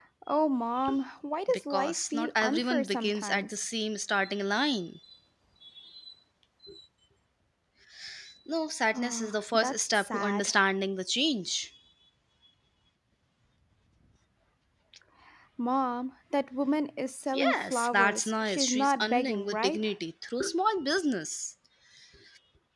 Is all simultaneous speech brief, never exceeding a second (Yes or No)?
No